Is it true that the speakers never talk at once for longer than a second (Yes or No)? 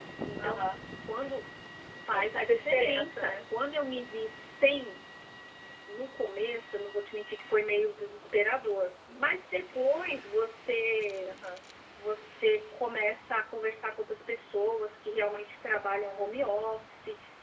No